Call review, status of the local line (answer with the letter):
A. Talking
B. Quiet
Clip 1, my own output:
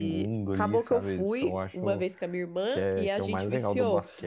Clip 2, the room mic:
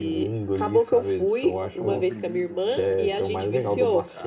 A